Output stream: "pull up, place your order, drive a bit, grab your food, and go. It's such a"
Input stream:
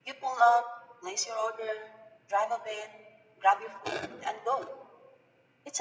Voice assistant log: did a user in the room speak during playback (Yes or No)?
No